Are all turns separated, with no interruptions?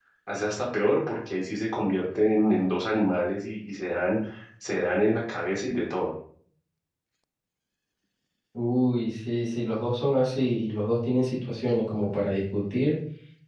Yes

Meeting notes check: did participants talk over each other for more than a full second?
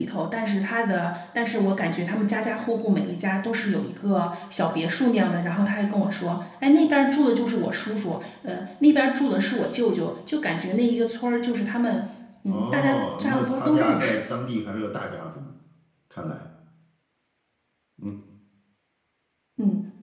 Yes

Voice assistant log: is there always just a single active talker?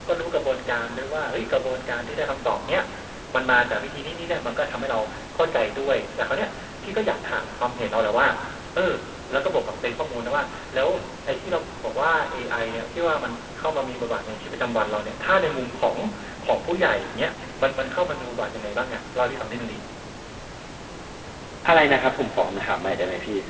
Yes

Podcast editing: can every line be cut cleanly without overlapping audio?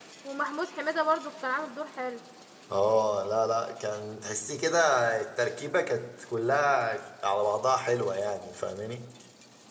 Yes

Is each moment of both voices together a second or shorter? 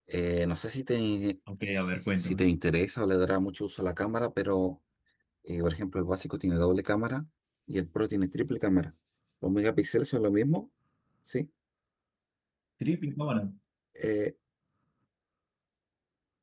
Yes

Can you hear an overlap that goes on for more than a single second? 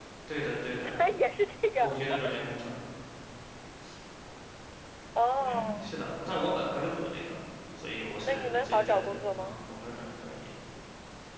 Yes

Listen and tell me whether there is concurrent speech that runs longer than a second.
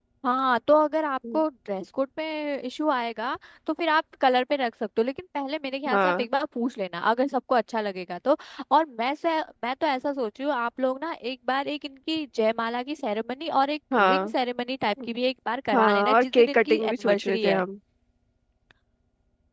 Yes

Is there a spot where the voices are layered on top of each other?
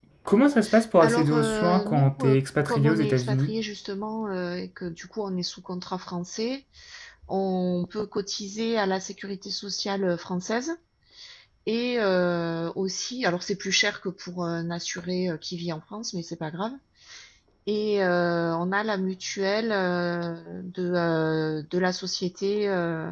Yes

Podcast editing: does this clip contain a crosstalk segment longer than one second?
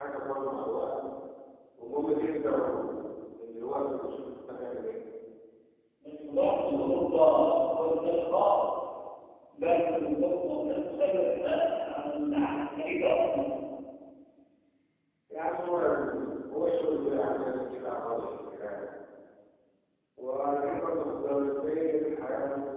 No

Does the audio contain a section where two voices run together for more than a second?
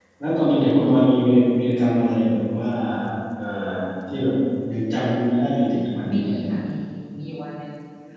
No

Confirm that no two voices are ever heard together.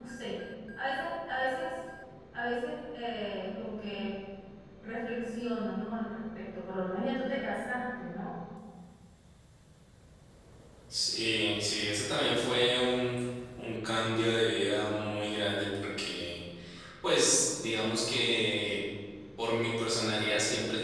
Yes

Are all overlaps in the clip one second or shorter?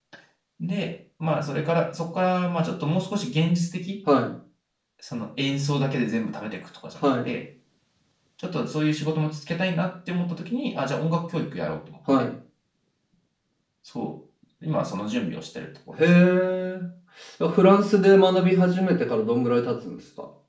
Yes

